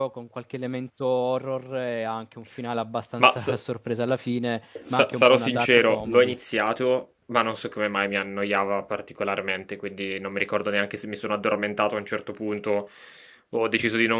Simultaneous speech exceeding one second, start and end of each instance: 4.9-6.3

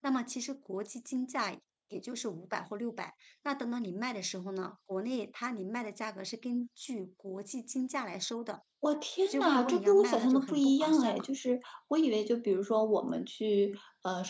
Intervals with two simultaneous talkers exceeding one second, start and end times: 9.3-11.2

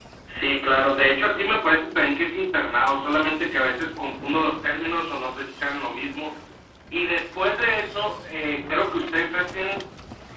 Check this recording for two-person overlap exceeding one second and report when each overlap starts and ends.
none

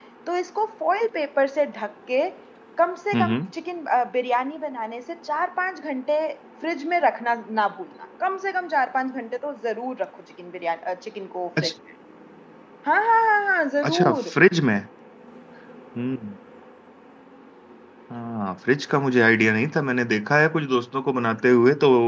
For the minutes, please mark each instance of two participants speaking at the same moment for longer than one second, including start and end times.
none

